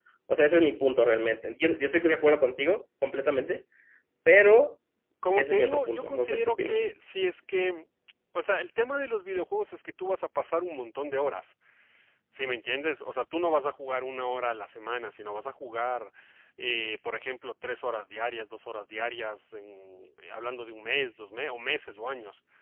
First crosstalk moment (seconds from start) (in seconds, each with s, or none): 5.4 s